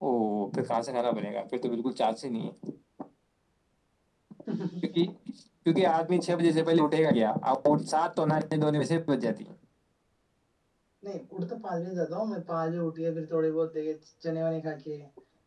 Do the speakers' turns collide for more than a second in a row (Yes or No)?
No